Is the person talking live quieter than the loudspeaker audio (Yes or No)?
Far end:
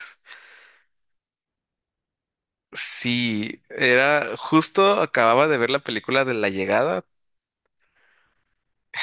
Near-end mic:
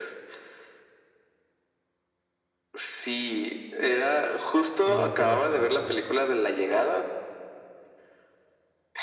Yes